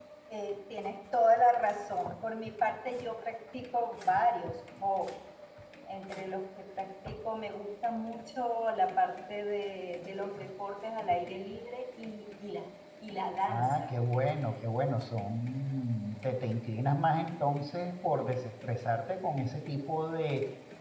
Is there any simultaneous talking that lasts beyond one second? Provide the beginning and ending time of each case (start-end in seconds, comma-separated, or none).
none